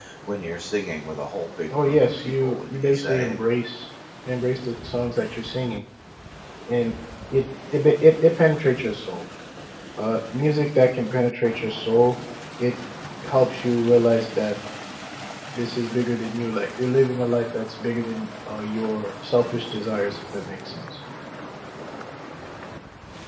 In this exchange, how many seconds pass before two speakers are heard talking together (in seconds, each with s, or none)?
1.7 s